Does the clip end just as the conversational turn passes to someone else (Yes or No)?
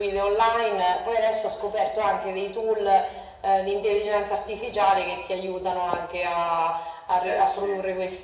No